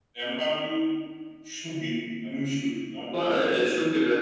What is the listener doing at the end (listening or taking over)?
taking over